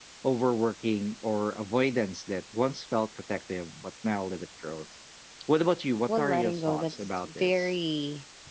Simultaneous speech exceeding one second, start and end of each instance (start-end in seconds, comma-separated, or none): 6.1-7.7